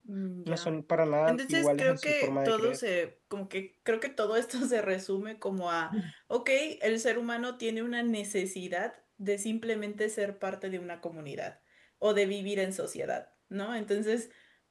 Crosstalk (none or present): present